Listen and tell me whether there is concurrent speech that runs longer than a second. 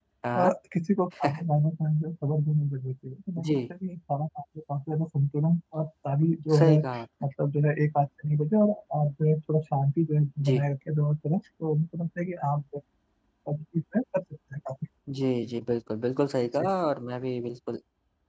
No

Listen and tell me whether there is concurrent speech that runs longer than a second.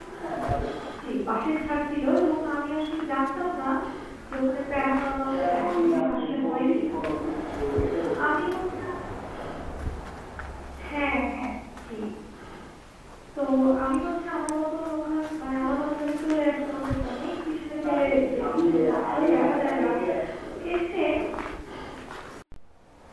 Yes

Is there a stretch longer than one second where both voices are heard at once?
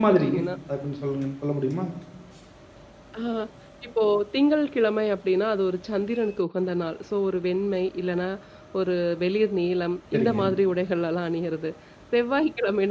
No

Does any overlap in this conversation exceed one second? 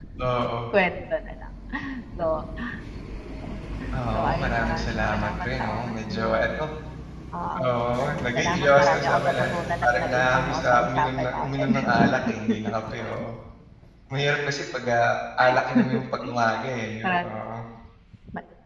Yes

